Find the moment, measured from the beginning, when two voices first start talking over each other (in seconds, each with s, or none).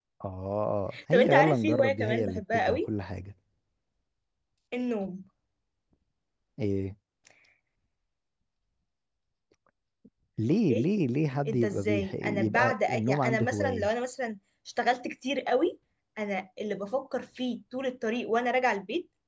1.1 s